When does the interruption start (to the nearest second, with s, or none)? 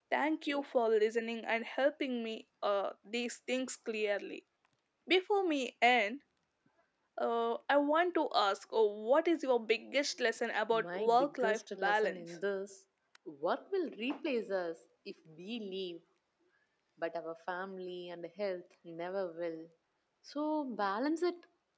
11 s